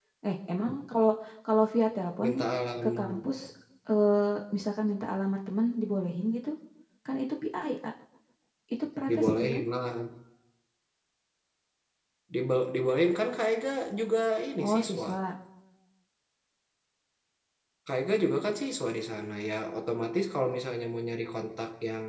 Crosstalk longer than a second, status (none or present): none